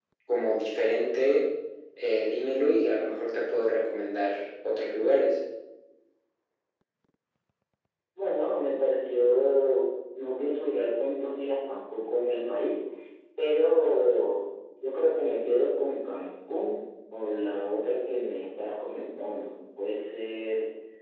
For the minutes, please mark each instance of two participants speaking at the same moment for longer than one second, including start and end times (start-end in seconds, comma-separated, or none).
none